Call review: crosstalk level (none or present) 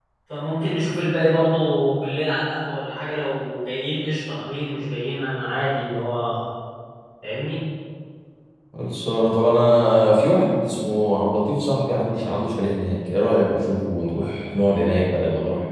none